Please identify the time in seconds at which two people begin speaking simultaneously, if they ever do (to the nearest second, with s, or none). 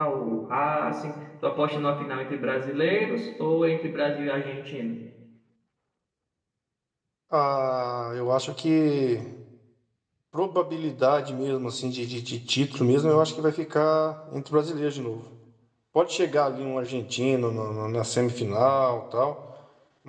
none